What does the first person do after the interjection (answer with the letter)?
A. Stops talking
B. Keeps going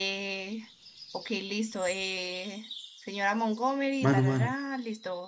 B